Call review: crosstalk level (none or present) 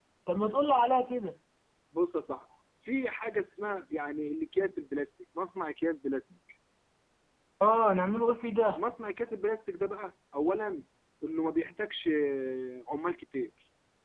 none